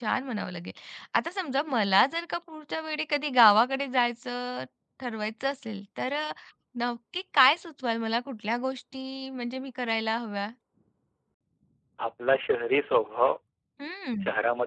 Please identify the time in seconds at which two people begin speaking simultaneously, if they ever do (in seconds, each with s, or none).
none